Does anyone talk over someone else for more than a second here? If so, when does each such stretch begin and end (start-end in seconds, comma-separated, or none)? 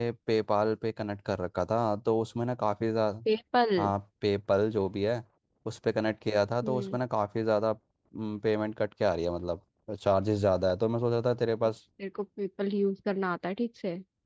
none